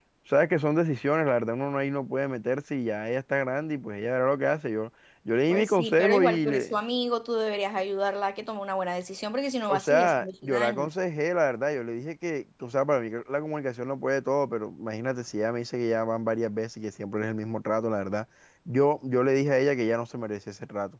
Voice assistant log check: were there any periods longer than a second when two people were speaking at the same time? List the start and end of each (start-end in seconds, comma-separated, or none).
5.5-6.7, 9.7-10.9